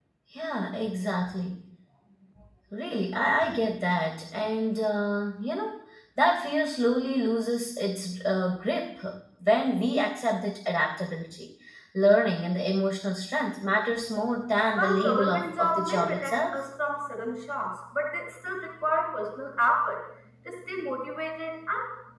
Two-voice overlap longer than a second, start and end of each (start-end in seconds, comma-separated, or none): 14.8-16.6